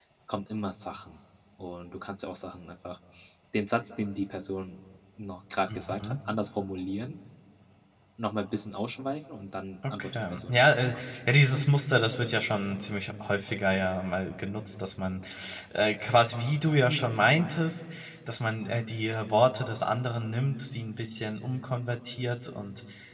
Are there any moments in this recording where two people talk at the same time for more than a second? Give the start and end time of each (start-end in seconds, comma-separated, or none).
9.9-11.7